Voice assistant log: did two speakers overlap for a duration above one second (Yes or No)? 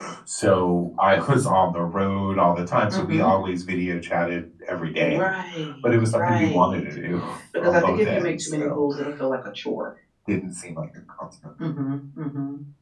Yes